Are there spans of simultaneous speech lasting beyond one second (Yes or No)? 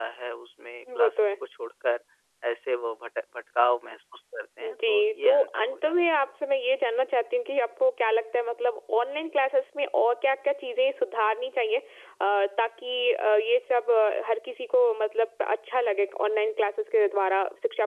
Yes